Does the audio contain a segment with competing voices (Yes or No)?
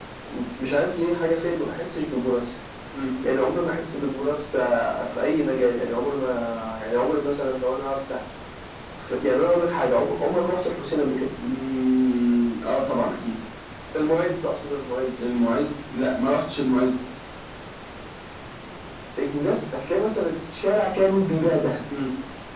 No